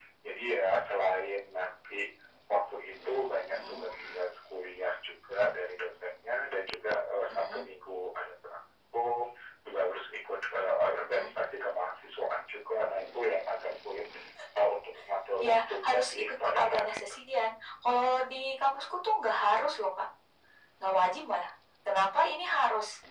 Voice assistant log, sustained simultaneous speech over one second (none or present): present